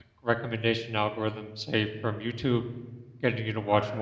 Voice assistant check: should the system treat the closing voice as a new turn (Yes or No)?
No